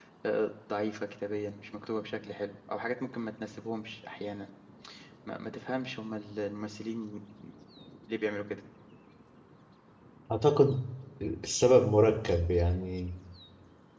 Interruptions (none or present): none